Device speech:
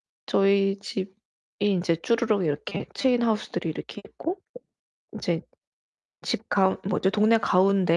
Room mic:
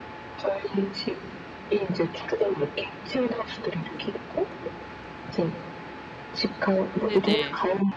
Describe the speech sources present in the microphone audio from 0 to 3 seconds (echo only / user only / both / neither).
echo only